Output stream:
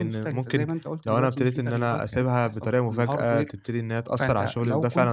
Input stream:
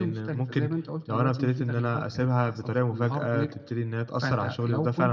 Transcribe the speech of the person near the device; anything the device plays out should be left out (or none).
none